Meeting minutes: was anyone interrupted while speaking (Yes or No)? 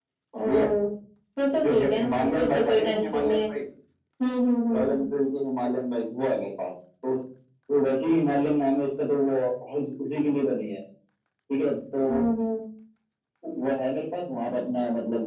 Yes